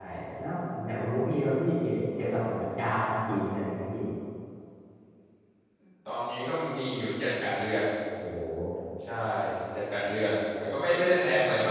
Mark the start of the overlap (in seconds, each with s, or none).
none